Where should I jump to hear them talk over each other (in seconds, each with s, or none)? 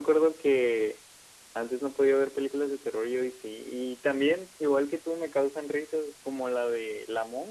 none